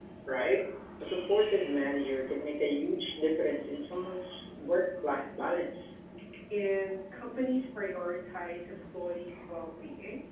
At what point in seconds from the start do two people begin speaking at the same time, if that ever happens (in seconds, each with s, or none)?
none